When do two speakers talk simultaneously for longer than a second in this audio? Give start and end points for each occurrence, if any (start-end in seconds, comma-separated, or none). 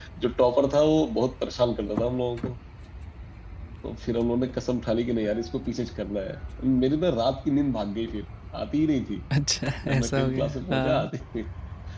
9.8-11.1